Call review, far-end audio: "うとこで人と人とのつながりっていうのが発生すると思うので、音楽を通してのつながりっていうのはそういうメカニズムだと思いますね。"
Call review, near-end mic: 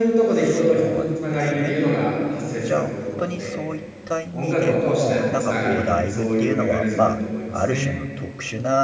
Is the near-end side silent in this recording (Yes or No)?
No